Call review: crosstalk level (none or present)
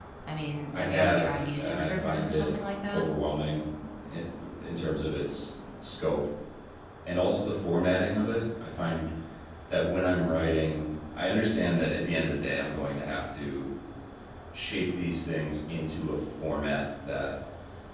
present